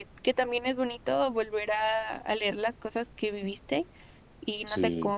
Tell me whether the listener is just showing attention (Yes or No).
Yes